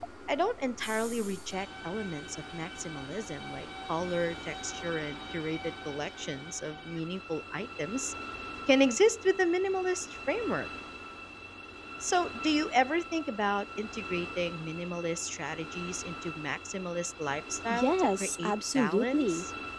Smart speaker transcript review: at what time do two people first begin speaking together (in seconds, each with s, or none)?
17.7 s